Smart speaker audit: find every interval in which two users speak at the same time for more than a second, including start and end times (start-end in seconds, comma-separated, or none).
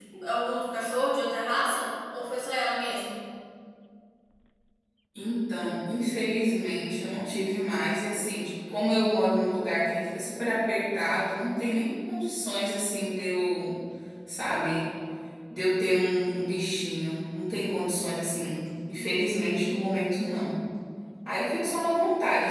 none